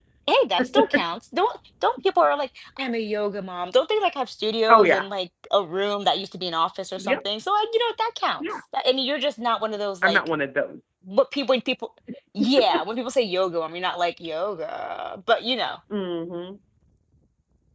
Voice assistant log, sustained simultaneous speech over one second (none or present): none